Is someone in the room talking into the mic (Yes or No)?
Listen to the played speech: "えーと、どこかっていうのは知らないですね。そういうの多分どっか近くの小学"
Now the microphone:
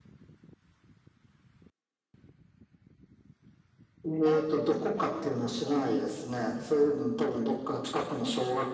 Yes